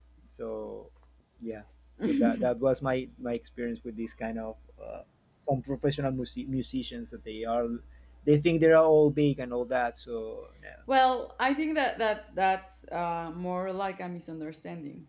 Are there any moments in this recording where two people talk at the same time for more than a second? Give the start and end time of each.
none

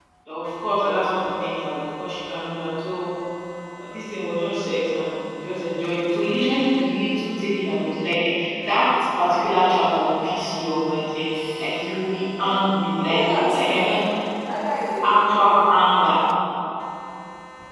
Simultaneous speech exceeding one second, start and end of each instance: 12.4-14.0

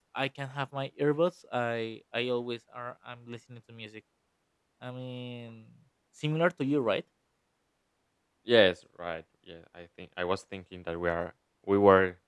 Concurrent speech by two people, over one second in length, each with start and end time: none

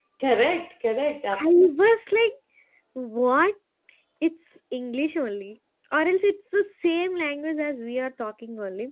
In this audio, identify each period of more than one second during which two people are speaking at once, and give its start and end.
none

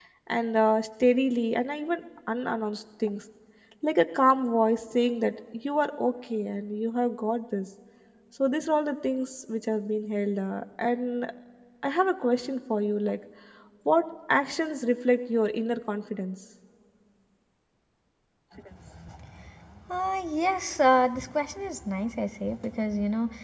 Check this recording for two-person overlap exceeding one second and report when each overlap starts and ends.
none

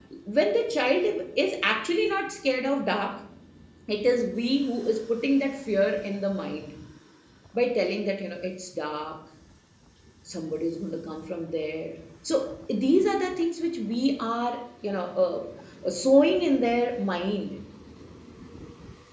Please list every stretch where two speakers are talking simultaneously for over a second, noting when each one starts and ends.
none

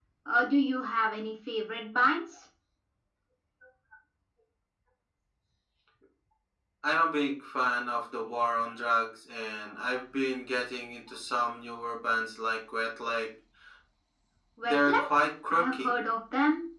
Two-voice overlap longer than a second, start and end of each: none

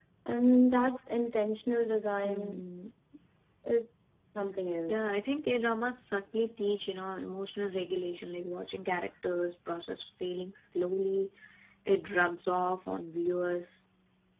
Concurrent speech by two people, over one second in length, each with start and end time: none

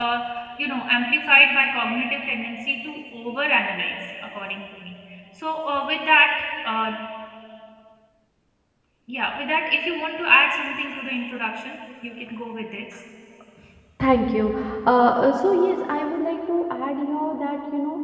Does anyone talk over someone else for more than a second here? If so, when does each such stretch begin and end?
none

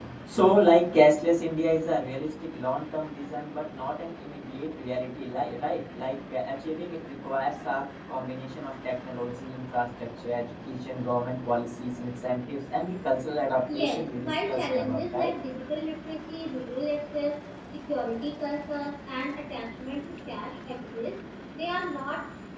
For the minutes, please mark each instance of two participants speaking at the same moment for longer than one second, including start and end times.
13.7-15.3

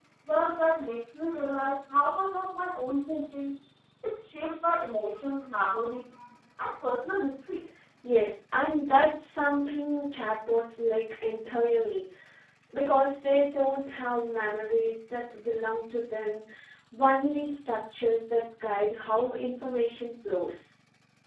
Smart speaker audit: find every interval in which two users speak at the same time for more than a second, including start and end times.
none

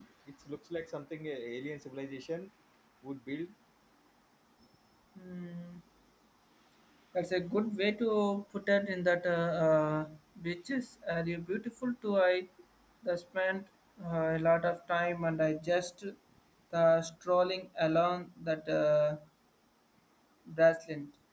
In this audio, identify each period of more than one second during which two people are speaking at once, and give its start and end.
none

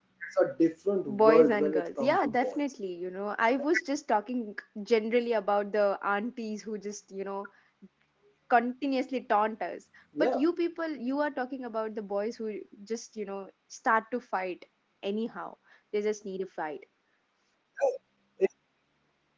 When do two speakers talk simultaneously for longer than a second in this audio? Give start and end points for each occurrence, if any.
1.1-2.6

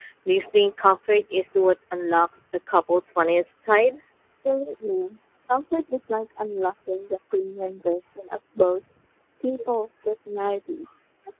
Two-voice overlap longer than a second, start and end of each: none

